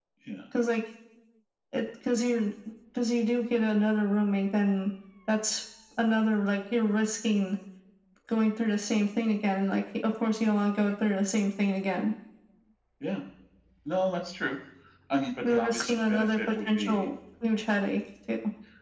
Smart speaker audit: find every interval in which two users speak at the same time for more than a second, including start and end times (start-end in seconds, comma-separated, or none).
15.4-17.1